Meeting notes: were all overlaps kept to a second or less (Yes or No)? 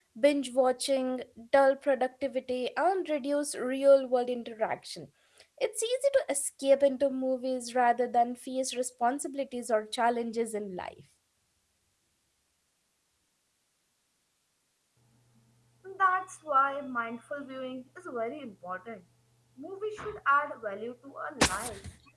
Yes